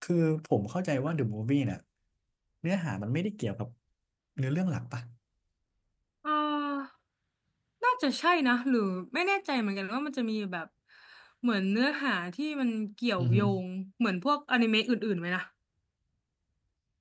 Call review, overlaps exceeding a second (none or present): none